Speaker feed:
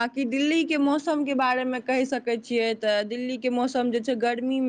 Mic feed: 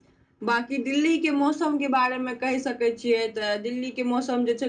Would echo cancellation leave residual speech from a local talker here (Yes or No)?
No